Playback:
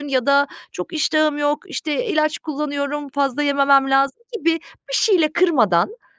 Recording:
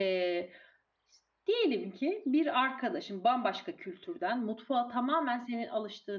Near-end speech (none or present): present